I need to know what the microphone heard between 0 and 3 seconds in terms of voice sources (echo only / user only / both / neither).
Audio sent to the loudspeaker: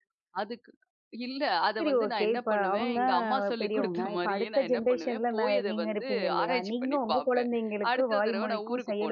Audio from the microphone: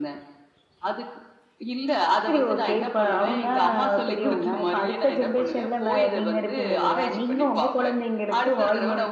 echo only